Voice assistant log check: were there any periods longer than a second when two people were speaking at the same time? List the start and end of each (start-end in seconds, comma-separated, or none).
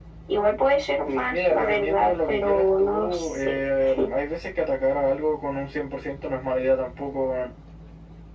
1.3-3.5